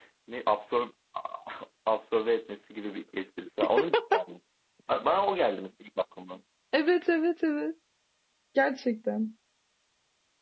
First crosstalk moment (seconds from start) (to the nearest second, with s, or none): none